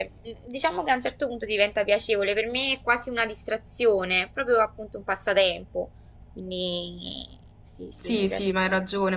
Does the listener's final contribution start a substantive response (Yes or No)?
Yes